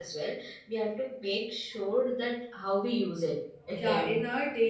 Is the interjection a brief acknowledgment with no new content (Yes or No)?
No